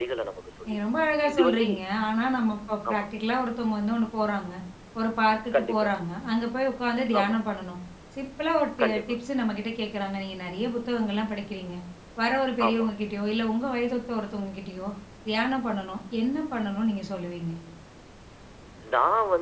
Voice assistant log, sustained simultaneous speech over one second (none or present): none